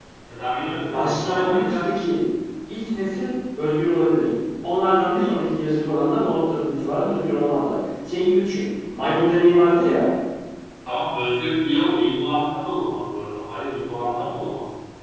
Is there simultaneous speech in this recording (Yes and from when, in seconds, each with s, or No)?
Yes, from 0.7 s